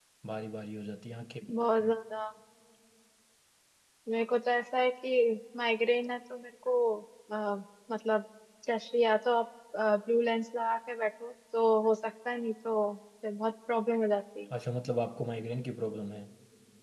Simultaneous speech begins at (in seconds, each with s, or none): none